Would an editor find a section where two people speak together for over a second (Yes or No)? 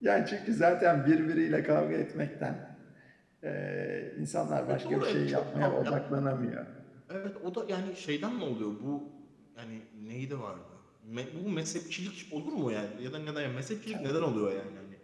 Yes